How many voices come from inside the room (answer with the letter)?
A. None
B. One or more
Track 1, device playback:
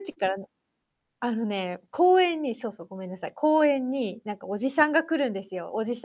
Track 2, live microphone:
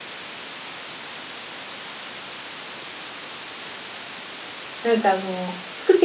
B